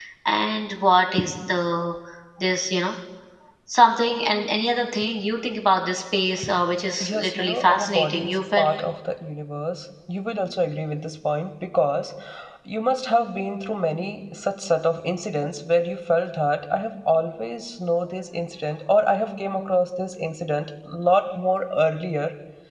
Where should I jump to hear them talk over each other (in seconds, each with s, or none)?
7.0 s